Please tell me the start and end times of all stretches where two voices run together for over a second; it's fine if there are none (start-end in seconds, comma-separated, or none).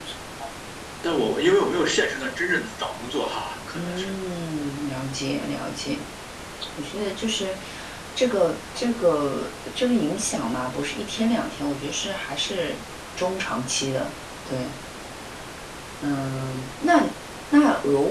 none